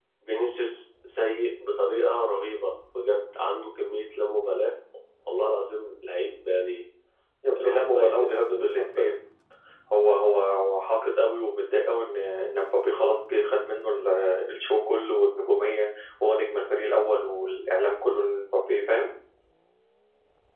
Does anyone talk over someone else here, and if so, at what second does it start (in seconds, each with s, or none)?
7.6 s